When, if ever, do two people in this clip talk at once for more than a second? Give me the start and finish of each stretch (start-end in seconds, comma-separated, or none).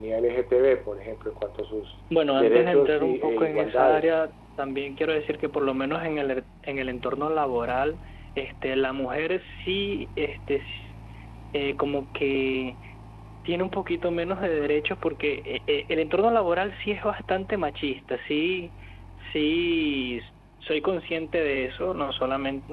2.4-4.2